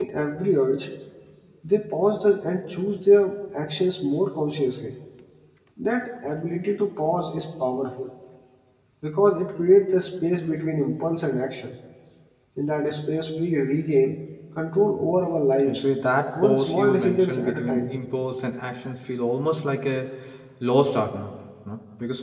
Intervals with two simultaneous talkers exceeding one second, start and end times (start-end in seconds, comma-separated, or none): 16.4-17.9